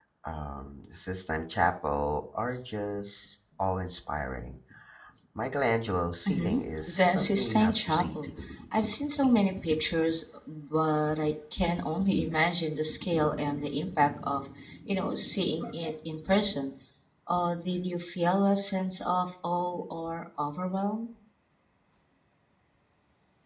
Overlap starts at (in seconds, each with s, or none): 6.3 s